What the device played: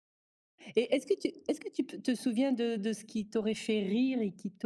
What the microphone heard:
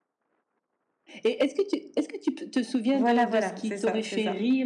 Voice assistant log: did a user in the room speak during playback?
Yes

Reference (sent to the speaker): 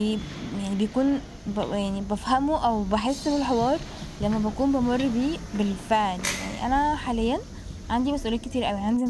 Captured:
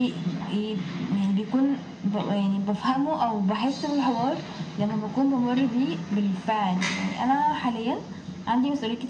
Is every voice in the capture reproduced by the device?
Yes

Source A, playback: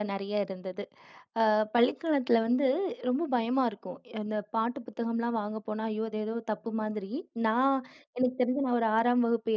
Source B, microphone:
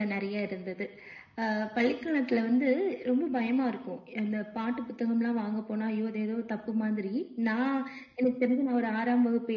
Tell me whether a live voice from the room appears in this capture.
No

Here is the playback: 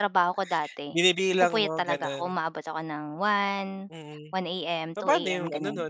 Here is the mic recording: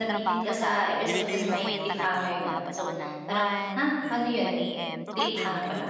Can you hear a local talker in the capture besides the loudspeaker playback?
Yes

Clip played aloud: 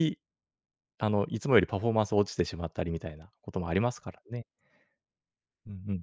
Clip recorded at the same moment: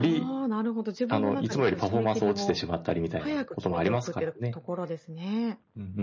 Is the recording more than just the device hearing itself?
Yes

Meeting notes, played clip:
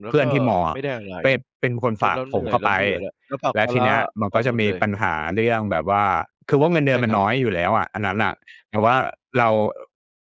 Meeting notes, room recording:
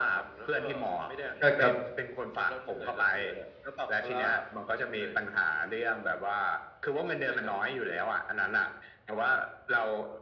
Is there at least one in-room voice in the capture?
Yes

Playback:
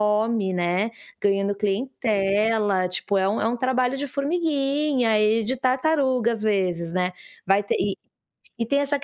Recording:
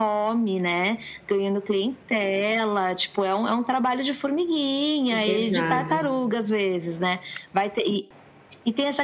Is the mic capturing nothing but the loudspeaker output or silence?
No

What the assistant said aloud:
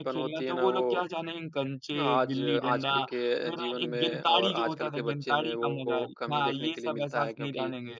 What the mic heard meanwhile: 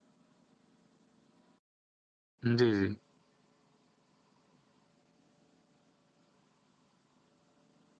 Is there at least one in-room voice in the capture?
Yes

